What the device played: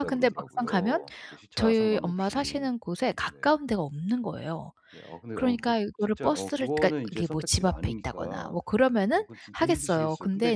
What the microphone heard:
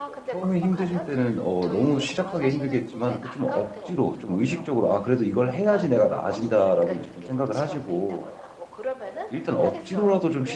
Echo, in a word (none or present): present